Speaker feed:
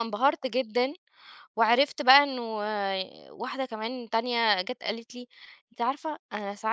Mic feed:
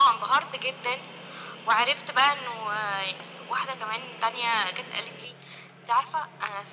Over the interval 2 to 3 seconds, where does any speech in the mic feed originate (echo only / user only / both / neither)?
echo only